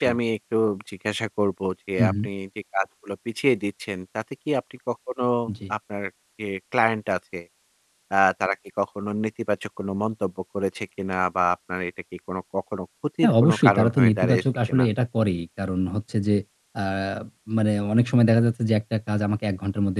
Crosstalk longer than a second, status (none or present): present